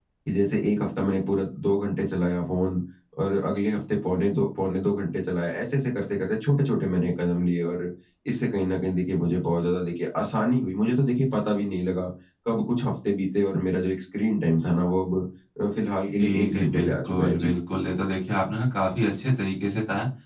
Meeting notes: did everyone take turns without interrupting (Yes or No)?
No